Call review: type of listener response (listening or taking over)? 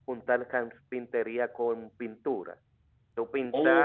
taking over